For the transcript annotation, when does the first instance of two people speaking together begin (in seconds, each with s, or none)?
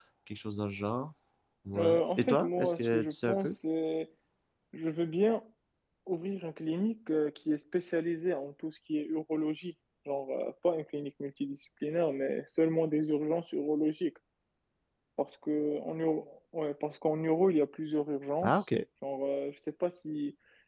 1.8 s